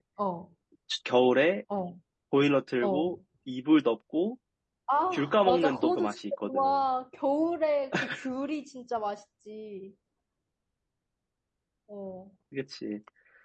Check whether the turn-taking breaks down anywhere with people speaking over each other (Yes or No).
Yes